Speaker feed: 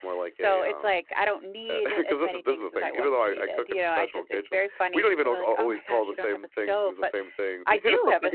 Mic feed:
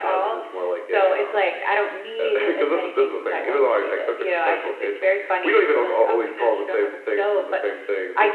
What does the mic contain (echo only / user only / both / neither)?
echo only